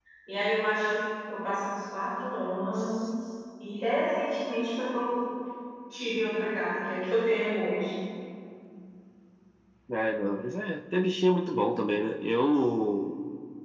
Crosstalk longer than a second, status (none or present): none